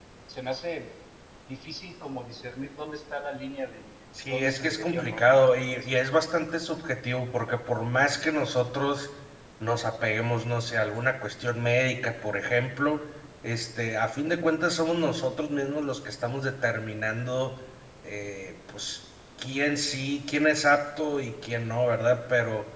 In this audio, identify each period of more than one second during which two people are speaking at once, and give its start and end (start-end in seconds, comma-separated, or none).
4.3-5.9